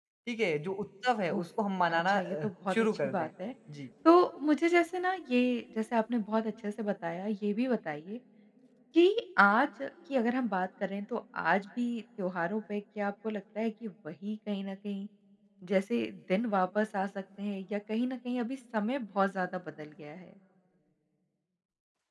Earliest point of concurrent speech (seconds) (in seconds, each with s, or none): 2.0 s